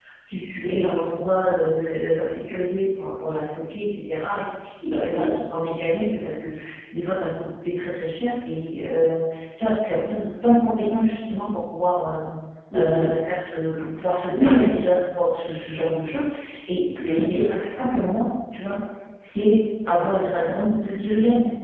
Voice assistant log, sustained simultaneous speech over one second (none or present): none